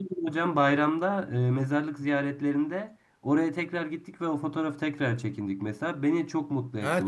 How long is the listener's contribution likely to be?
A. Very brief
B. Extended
B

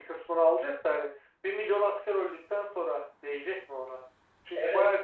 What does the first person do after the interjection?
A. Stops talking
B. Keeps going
B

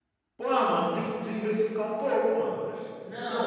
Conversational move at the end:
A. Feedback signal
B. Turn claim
B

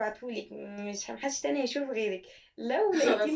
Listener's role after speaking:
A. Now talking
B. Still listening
B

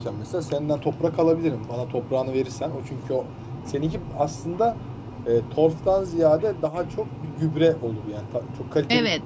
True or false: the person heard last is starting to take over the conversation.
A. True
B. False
A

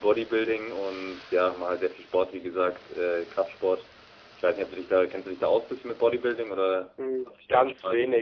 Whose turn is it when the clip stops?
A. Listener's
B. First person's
A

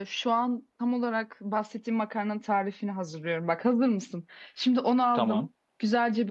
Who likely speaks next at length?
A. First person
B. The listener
A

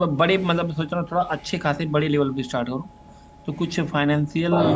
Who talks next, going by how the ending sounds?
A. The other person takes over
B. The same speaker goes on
B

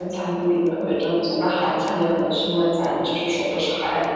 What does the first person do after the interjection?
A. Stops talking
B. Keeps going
A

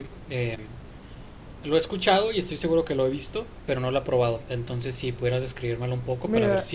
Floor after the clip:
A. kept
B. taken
B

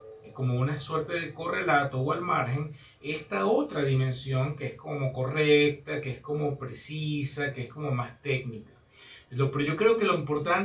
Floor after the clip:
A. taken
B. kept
B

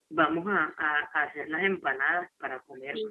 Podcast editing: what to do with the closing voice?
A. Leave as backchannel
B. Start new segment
B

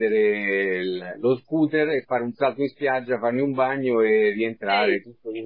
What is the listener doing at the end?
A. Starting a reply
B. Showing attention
B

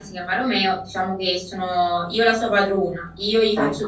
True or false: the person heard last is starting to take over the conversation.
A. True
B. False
B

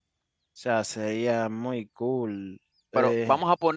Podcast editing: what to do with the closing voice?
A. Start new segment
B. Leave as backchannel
A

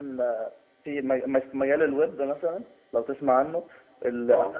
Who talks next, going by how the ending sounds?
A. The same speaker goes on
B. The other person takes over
A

